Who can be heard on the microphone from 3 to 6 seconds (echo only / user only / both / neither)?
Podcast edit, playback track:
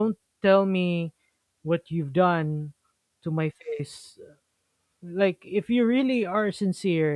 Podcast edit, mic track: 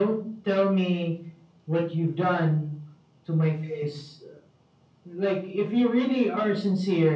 echo only